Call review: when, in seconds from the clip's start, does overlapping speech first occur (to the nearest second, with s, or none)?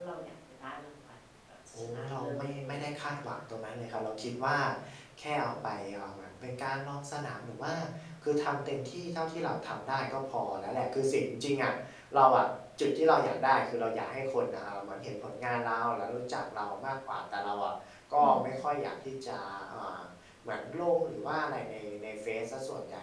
2 s